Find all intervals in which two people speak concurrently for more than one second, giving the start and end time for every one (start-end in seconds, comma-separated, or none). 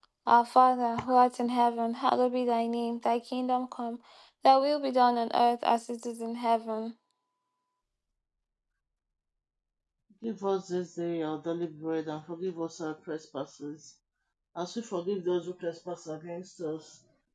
none